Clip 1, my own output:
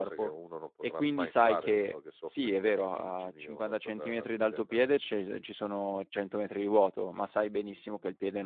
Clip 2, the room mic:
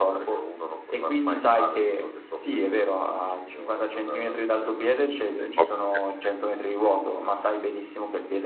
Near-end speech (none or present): present